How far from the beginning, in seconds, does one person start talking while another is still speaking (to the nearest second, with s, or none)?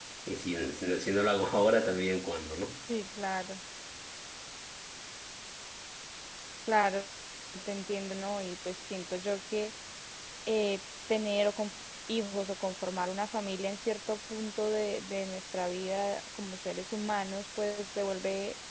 none